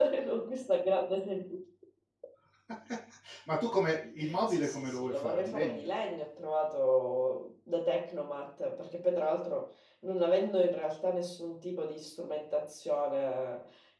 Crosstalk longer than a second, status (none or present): present